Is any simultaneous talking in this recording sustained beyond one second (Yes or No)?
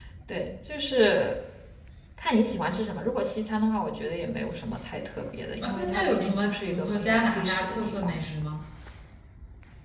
Yes